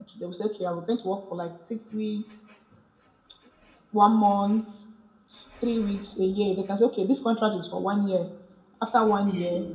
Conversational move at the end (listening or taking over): listening